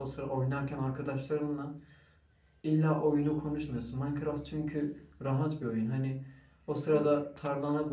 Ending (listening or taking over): listening